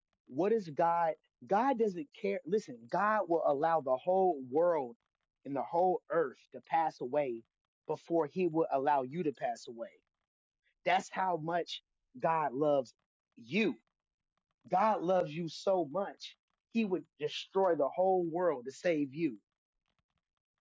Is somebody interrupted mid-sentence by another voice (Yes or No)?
No